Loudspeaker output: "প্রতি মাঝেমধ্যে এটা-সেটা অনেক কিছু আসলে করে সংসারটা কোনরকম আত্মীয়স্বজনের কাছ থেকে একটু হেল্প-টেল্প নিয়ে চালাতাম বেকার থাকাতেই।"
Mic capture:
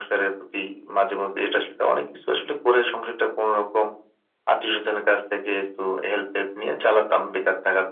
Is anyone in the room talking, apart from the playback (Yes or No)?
No